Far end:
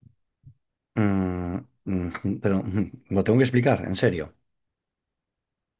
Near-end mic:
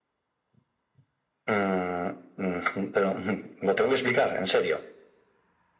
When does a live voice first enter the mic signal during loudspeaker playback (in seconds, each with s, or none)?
none